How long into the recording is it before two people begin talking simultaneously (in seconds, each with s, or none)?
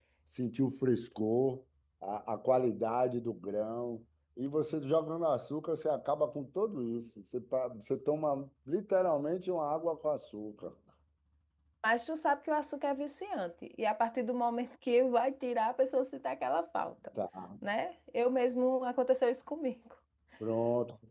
none